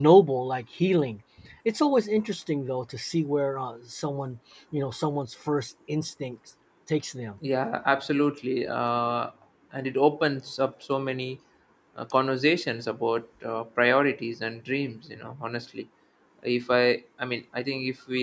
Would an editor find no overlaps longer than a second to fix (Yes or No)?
Yes